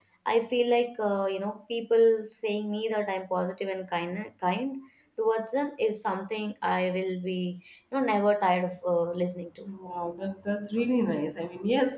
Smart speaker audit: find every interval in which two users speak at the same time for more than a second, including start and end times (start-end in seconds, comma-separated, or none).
none